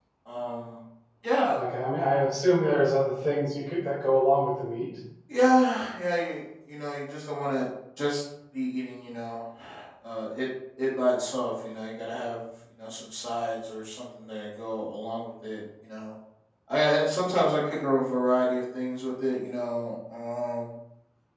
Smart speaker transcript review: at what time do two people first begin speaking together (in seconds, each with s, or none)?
none